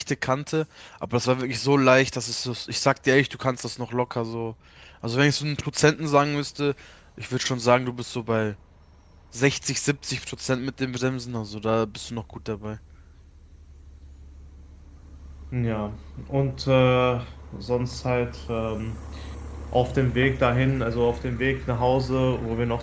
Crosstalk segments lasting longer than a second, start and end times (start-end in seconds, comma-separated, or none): none